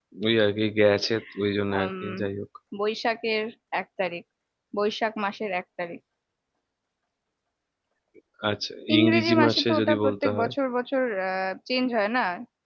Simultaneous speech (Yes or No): Yes